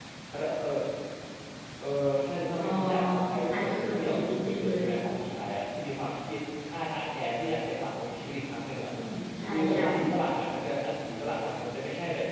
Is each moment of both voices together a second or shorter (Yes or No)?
No